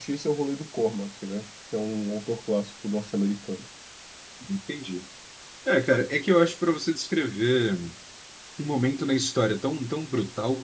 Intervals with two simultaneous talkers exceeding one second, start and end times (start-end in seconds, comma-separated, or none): none